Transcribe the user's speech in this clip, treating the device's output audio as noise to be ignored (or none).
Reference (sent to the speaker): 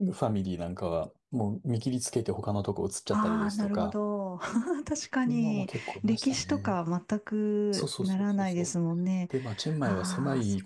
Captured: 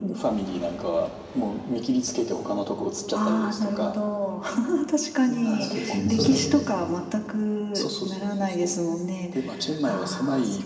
あ、そうですね、そうですね。